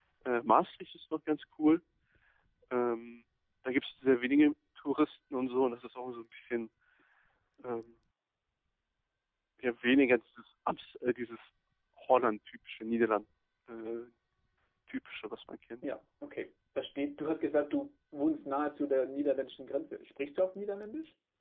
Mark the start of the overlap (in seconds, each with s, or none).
none